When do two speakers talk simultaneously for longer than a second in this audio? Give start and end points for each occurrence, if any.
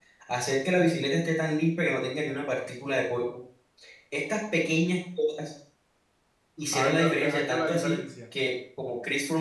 6.7-8.0

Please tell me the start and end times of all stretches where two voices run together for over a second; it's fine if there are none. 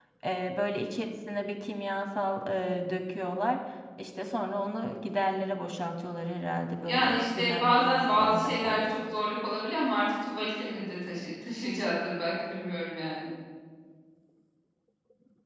6.8-8.8

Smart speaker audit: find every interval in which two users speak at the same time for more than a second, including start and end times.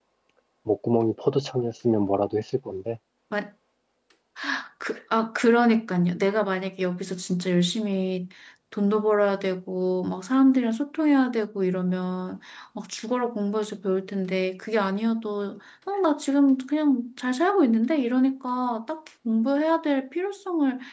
none

